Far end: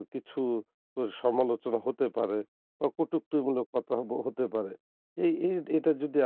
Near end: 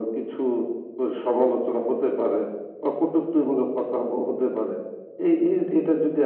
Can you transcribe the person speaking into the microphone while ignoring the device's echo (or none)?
none